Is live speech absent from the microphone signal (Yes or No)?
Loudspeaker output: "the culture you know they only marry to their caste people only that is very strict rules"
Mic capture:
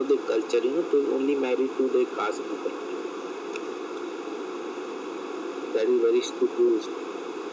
Yes